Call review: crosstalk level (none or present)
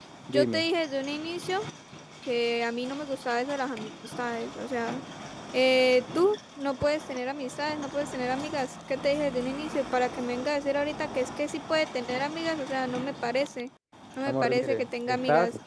present